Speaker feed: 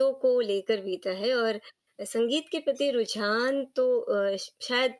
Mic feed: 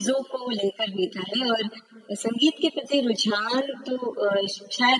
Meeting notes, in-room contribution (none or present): none